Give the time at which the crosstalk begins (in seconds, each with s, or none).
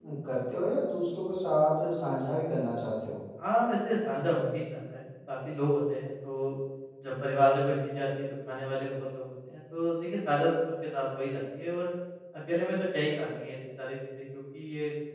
none